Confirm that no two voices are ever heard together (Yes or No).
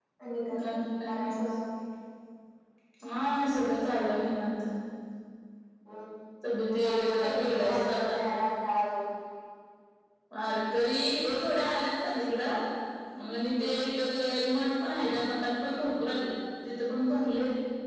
No